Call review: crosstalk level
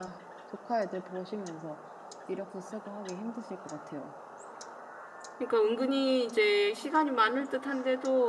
none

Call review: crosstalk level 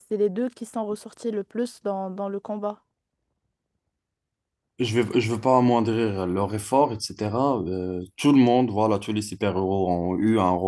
none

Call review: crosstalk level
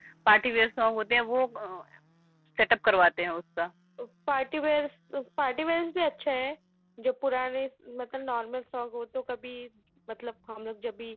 none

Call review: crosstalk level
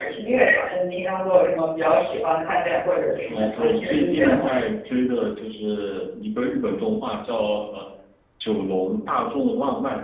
present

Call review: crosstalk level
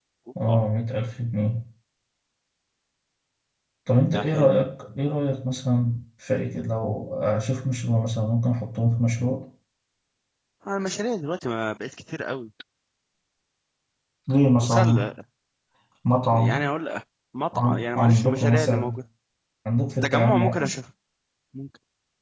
present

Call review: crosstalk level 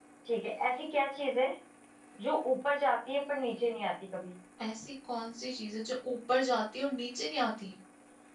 none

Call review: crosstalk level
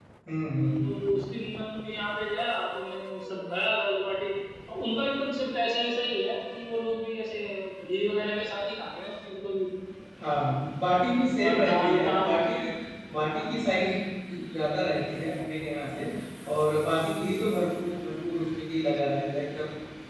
present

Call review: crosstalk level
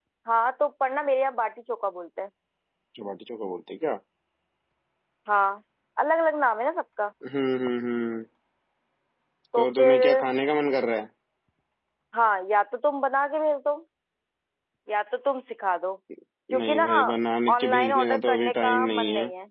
present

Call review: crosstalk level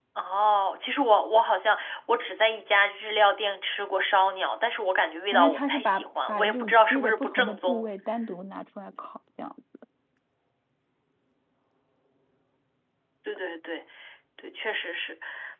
present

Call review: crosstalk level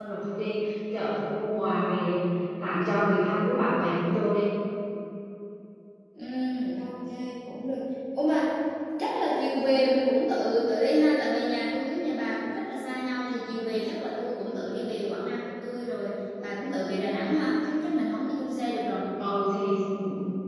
none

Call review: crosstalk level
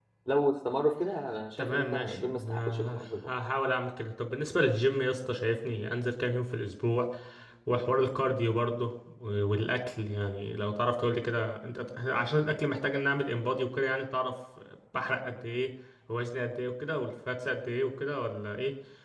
present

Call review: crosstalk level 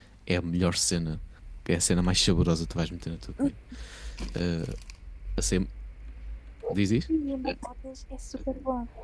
none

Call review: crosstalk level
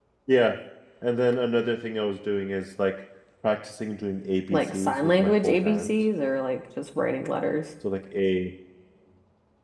present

